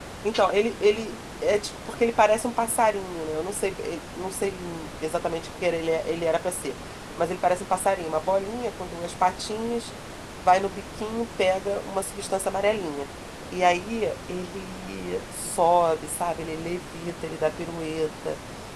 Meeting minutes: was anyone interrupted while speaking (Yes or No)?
No